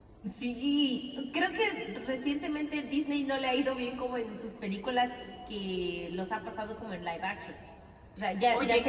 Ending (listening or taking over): listening